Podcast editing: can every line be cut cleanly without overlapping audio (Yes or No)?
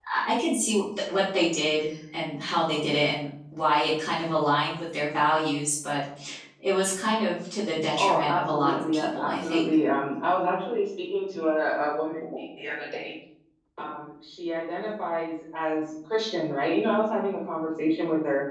No